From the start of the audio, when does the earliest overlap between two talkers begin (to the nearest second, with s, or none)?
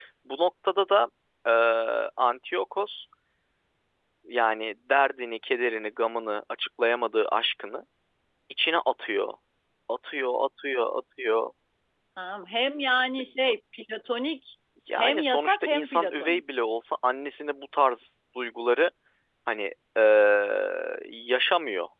15 s